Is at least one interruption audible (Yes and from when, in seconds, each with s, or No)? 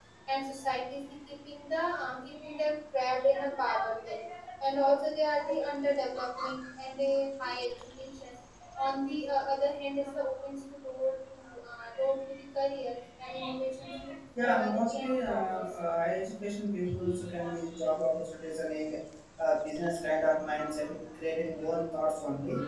Yes, from 14.4 s